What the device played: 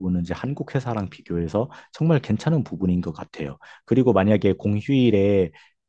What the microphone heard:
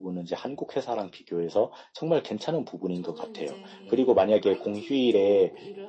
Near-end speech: present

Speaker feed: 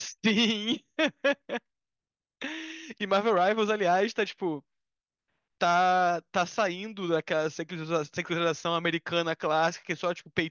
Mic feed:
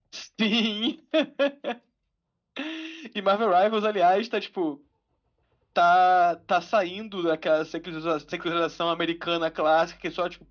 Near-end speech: none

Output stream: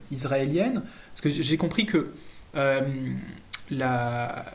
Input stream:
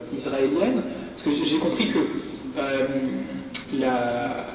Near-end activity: present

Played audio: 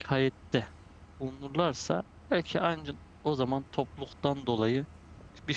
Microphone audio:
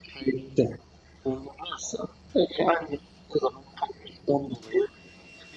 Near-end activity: none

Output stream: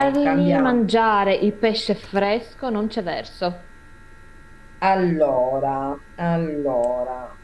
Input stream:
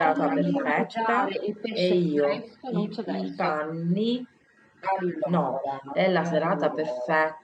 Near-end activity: present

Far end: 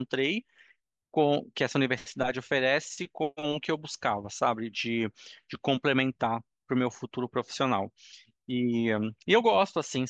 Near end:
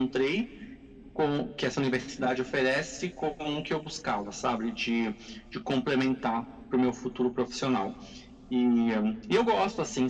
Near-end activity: none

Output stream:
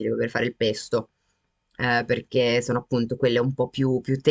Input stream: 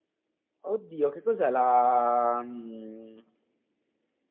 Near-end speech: present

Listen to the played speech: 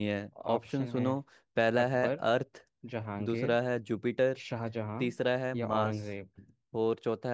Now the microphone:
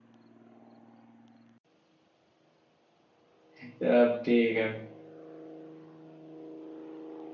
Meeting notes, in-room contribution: present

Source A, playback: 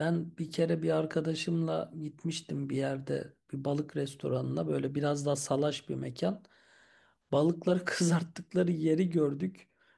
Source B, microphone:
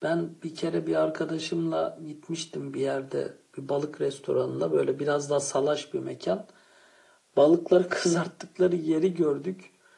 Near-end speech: none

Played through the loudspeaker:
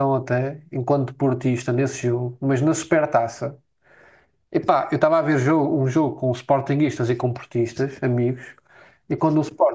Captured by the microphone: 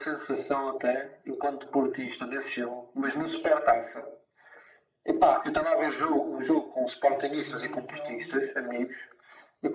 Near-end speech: present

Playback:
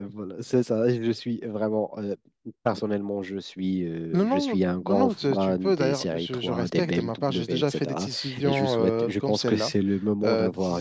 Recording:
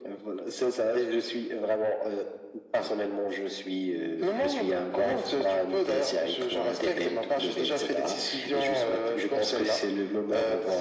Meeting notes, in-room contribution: none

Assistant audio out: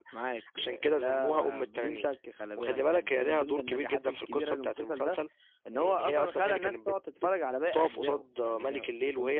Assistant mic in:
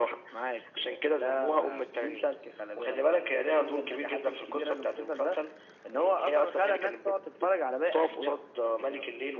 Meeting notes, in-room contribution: none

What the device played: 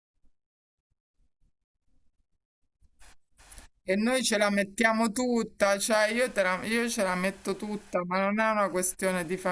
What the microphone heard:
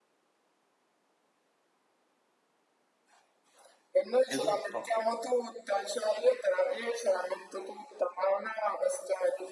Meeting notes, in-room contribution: present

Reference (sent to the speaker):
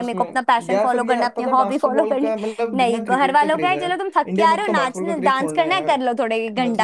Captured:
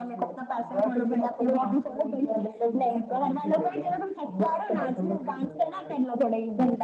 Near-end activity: none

